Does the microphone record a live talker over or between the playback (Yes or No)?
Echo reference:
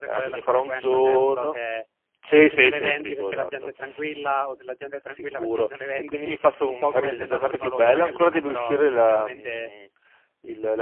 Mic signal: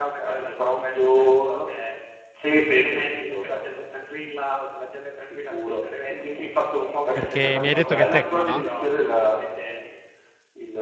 Yes